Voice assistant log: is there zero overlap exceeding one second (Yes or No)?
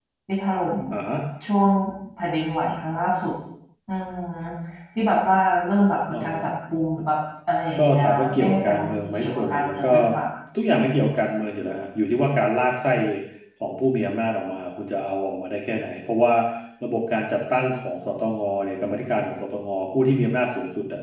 No